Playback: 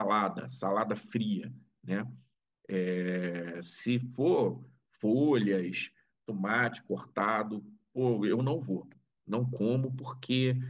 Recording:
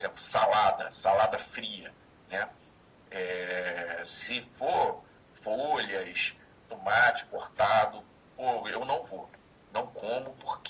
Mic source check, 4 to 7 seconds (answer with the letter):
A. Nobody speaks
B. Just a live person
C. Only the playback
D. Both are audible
C